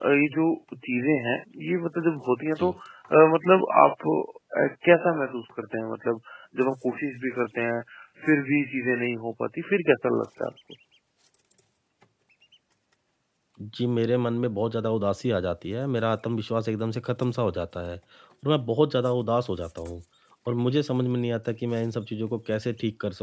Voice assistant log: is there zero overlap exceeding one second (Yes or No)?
Yes